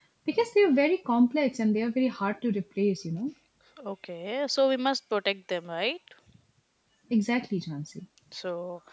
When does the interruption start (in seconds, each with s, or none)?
none